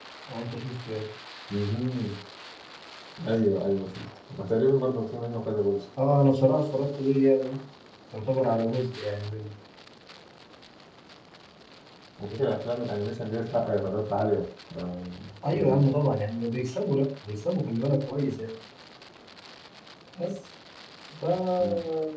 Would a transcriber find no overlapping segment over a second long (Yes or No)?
Yes